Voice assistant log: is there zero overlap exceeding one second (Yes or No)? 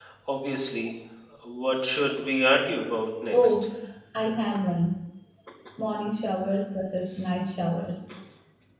Yes